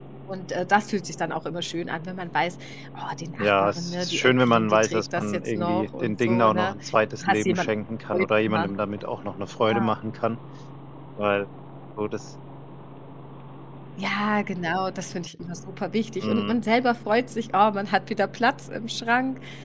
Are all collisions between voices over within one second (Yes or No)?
No